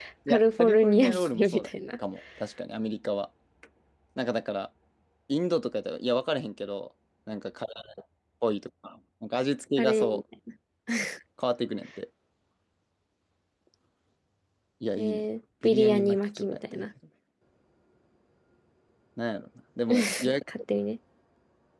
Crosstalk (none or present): present